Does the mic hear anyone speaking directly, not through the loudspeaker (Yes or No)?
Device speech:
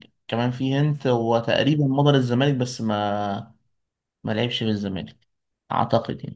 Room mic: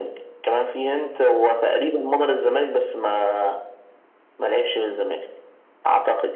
No